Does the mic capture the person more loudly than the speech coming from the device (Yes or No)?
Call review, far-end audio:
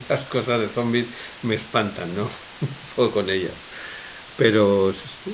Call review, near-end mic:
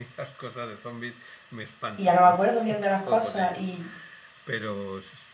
Yes